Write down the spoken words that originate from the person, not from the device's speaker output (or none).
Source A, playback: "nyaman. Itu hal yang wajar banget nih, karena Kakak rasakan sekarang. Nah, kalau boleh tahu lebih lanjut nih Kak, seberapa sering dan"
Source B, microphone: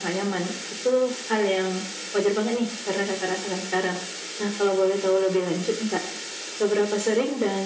none